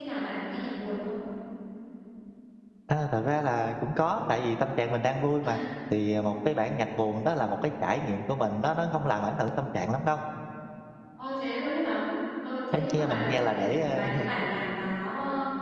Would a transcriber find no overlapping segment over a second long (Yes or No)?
No